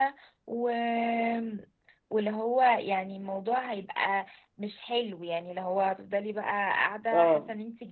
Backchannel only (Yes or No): No